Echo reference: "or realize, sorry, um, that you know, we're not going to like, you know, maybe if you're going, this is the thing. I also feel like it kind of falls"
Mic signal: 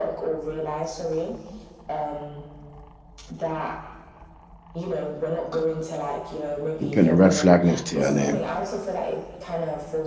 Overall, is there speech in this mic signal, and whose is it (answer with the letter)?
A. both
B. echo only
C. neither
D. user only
A